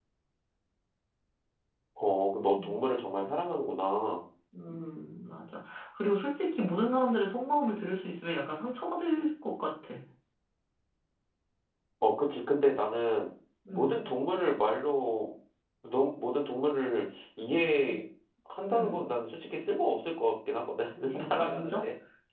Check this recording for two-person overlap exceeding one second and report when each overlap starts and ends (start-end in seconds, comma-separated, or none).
none